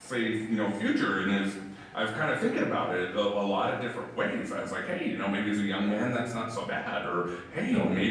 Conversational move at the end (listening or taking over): listening